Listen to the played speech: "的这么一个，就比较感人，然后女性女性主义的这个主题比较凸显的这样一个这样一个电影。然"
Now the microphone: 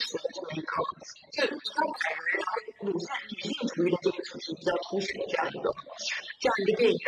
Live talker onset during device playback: none

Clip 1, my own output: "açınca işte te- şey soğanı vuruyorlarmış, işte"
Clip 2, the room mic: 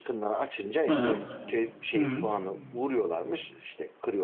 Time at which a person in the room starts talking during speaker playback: 0.9 s

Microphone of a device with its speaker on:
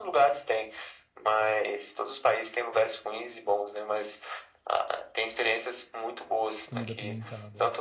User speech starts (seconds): 6.7 s

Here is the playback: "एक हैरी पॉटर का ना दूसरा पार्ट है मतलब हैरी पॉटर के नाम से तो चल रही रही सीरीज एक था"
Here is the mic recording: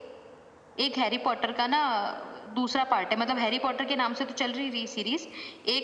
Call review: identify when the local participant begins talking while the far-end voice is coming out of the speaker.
none

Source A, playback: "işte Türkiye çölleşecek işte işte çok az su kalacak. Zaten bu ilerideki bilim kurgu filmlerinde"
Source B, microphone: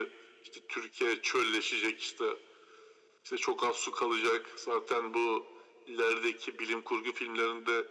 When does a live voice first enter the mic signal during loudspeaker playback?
none

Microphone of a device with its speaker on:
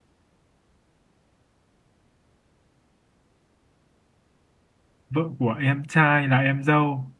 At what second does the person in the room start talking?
5.1 s

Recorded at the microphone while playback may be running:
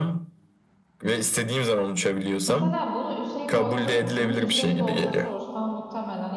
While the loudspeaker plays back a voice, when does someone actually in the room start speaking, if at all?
2.5 s

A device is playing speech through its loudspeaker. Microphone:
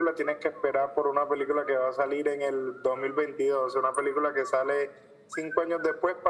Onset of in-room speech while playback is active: none

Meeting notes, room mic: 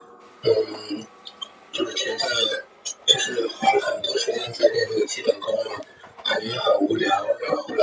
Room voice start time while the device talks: none

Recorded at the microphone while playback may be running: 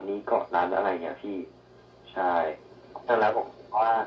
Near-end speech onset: none

